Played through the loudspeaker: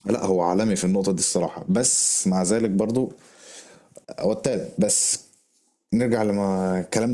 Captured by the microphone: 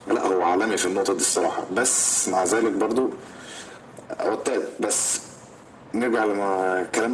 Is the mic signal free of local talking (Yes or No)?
Yes